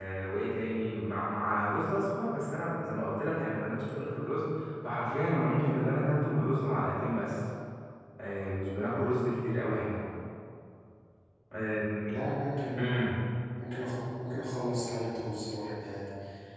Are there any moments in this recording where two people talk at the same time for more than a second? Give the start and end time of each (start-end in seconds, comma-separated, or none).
none